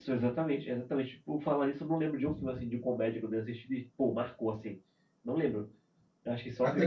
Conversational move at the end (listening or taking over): taking over